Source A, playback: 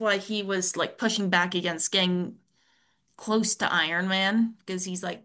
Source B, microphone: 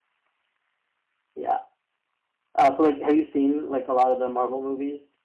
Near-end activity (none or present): present